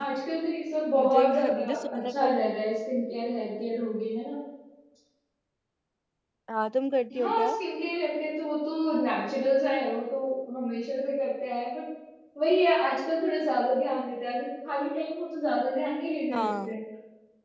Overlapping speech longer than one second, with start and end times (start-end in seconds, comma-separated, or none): 1.0-2.3